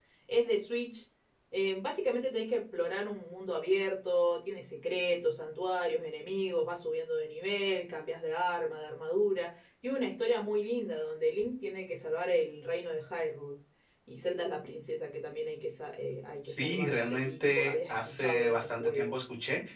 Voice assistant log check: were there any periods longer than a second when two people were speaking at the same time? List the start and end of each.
16.4-19.1

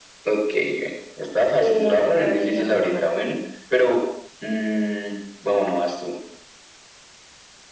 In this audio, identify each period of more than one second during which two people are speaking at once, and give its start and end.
1.6-3.0

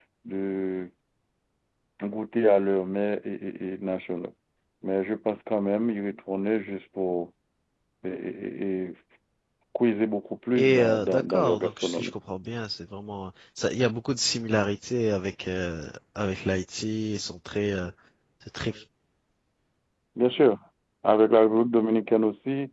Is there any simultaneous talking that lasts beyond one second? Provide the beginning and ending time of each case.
10.6-12.1

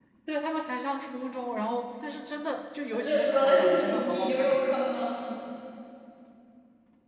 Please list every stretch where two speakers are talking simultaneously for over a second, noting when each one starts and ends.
2.9-4.6

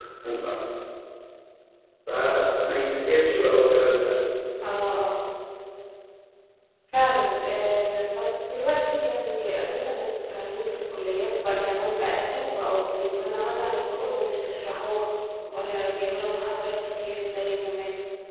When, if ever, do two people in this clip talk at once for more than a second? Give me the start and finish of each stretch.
none

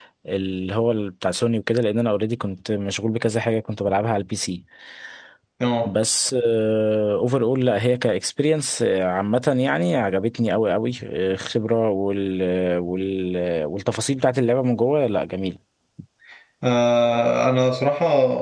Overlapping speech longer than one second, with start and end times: none

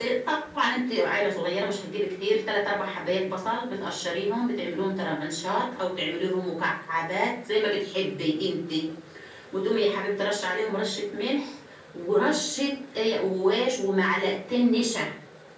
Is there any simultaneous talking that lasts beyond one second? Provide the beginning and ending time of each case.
none

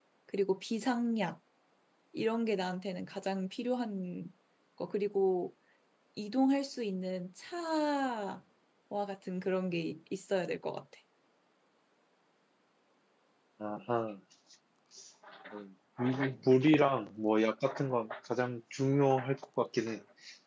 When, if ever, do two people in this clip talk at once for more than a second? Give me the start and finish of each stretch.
none

